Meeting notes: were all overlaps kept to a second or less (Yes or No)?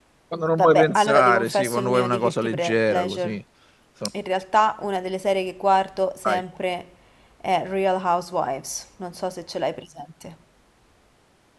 No